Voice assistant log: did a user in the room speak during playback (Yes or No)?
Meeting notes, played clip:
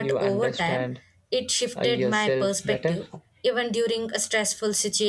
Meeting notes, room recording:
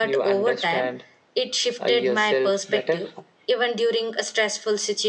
No